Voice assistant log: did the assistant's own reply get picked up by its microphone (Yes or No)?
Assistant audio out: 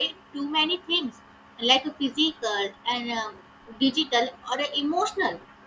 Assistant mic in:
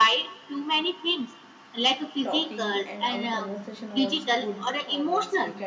Yes